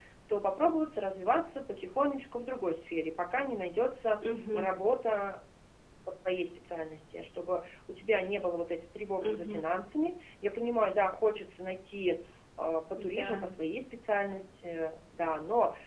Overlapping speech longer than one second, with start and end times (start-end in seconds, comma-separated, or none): none